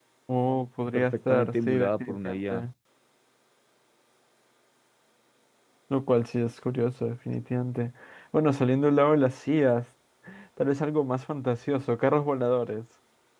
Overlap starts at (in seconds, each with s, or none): 0.9 s